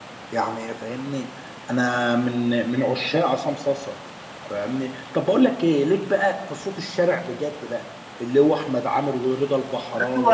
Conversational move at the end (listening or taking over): taking over